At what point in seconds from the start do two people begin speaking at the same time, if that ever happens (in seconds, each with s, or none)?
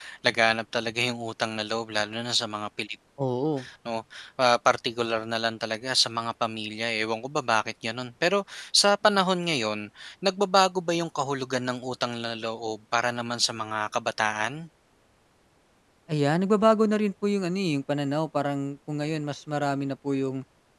none